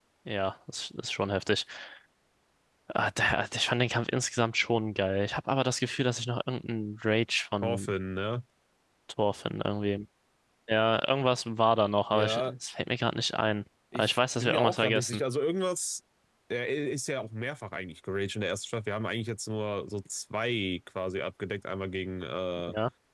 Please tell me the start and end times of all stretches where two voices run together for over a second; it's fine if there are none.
14.0-15.2

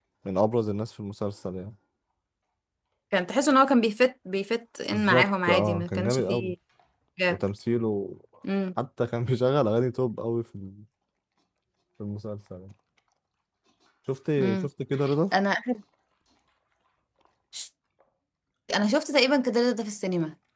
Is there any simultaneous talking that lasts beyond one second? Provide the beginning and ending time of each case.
4.9-6.5

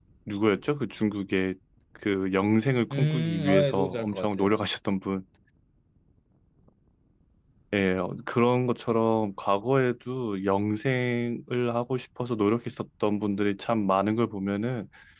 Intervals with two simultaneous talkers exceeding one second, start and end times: 2.9-4.5

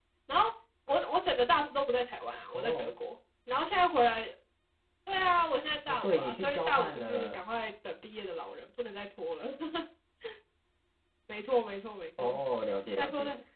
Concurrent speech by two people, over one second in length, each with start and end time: 5.9-7.4

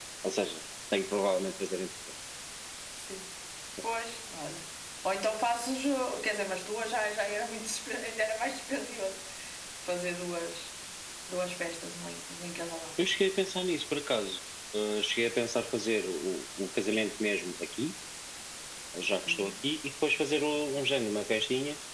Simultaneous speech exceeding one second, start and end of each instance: none

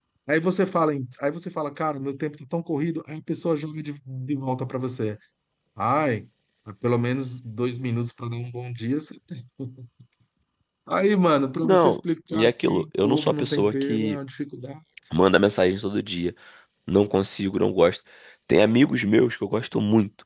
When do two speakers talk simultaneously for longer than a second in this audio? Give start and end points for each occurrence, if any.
12.4-14.2

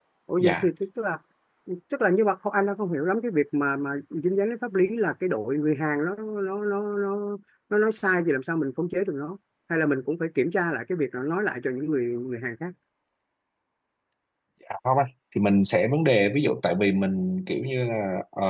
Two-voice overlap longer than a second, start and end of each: none

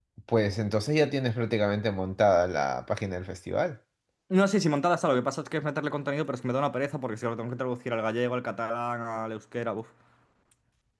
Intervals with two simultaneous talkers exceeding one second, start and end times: none

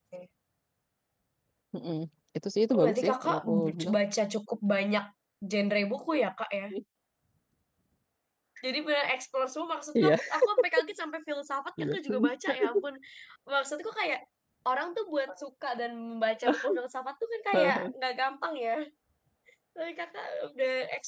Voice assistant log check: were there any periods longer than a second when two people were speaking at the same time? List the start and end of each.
2.7-4.0

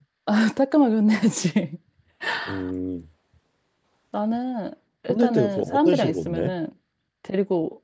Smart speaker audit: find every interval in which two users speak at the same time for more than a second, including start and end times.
5.1-6.5

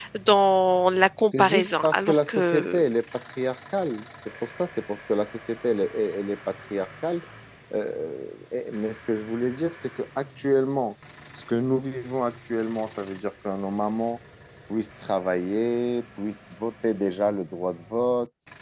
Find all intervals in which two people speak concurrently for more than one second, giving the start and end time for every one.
1.3-2.8

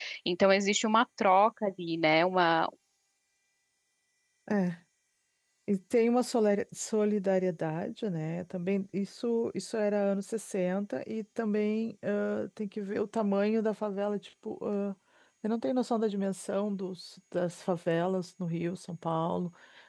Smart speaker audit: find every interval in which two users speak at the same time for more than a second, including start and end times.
none

